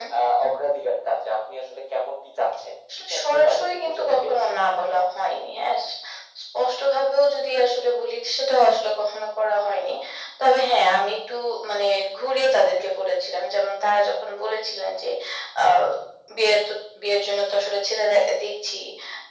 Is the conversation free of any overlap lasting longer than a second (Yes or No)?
No